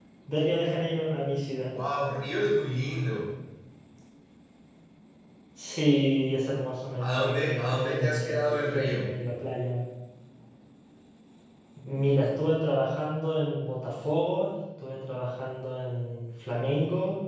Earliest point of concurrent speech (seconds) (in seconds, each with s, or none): 7.0 s